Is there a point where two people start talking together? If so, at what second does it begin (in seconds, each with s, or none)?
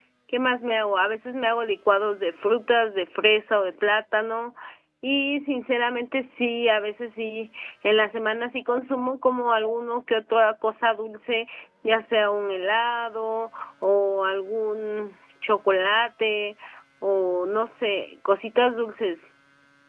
none